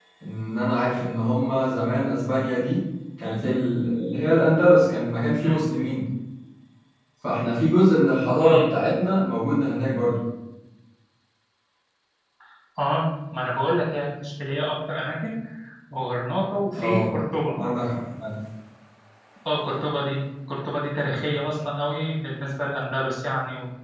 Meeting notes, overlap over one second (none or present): none